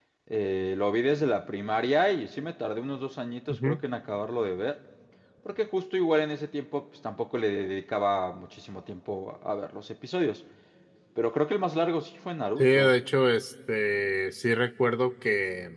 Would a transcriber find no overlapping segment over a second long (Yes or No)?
Yes